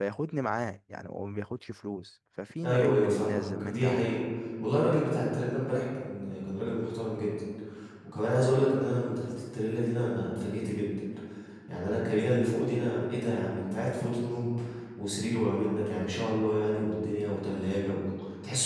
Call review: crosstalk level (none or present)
present